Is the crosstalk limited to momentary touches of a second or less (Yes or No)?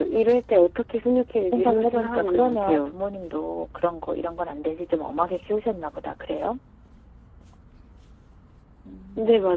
No